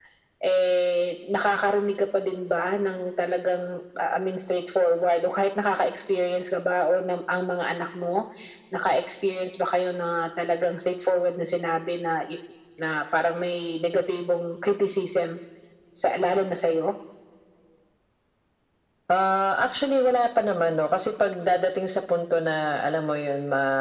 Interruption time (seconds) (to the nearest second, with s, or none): none